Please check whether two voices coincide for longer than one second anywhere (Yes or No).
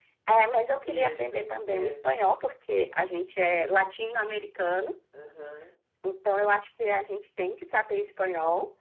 Yes